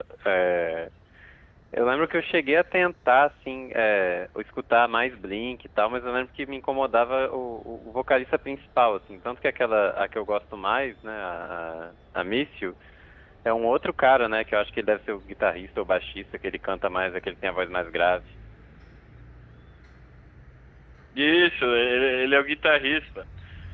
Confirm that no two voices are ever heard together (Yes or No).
Yes